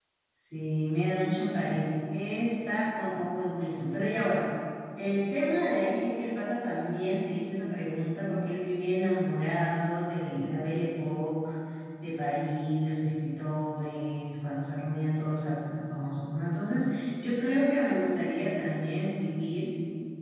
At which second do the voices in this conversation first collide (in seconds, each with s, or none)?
none